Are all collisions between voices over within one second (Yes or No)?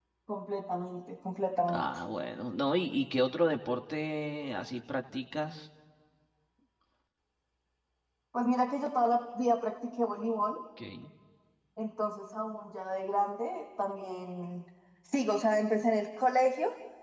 Yes